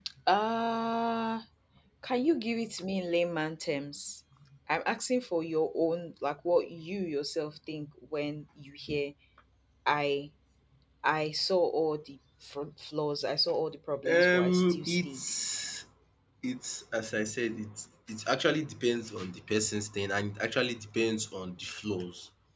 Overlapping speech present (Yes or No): Yes